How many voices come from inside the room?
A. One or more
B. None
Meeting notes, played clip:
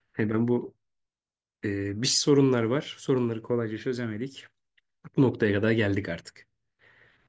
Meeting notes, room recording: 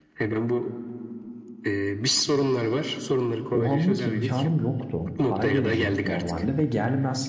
A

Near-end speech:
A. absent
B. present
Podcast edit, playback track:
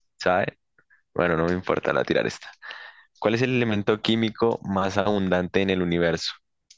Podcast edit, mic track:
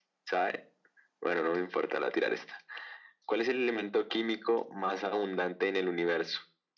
A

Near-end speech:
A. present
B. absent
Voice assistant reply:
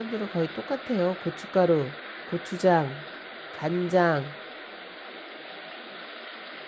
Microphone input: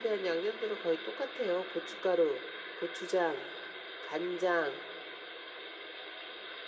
B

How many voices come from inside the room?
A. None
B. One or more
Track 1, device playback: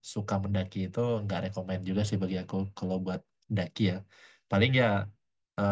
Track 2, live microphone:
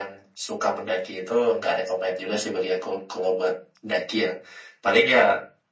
A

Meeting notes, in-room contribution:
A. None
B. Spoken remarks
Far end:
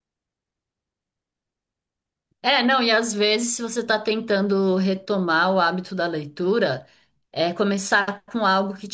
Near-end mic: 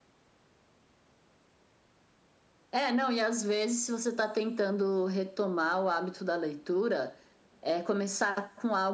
A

